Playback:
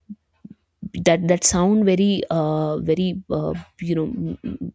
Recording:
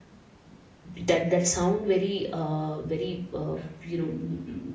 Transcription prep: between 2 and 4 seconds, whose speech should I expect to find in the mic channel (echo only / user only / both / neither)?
echo only